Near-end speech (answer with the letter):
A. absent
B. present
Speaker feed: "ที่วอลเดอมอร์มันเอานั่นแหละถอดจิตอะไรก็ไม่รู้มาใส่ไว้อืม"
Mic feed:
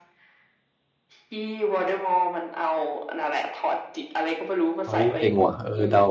B